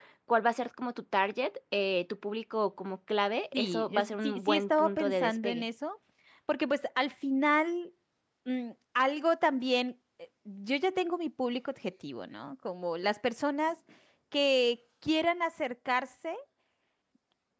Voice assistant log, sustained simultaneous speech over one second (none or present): present